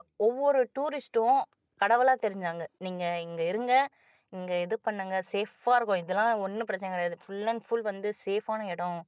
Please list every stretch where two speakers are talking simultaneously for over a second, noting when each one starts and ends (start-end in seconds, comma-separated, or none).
none